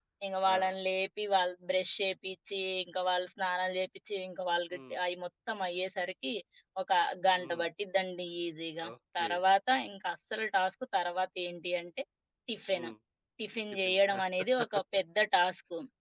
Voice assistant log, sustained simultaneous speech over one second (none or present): none